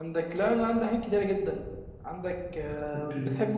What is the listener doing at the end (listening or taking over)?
listening